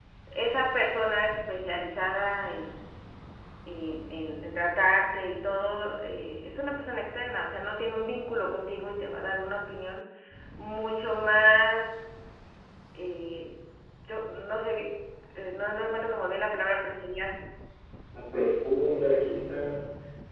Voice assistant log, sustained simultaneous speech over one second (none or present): none